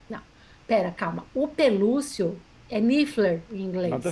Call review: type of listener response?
taking over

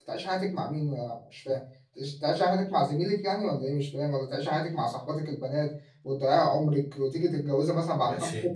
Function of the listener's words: taking over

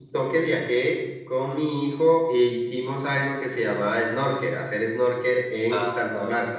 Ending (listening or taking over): taking over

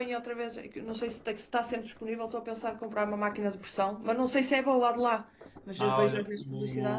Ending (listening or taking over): taking over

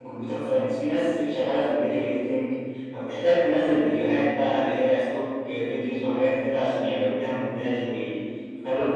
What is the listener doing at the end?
listening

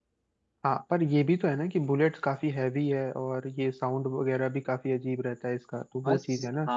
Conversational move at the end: taking over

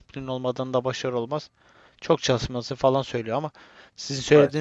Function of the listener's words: listening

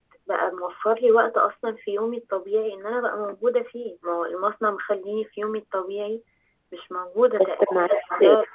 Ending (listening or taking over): listening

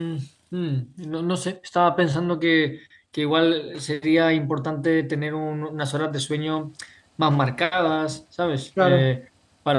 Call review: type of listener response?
listening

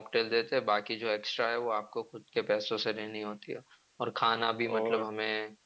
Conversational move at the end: listening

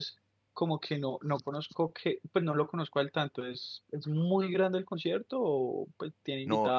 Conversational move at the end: taking over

